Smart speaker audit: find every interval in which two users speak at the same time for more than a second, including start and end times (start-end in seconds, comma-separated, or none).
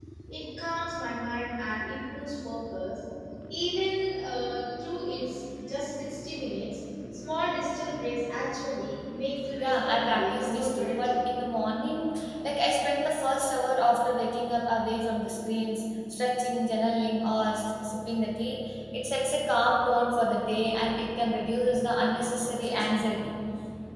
9.6-11.3